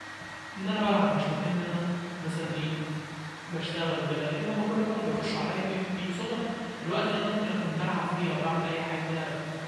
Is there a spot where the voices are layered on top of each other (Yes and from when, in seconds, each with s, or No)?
No